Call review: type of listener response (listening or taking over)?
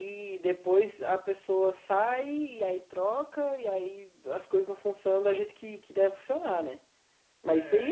listening